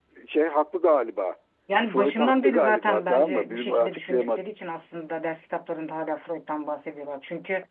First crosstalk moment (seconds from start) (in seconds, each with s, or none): 1.9 s